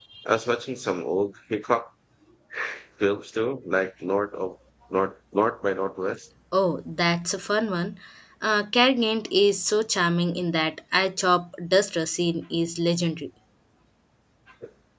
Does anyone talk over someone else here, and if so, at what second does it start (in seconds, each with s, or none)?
none